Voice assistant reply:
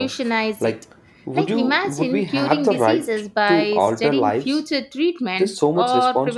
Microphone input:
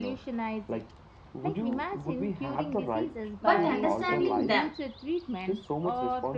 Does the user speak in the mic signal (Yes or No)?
Yes